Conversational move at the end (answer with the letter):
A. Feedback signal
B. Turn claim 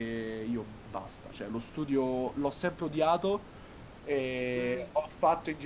A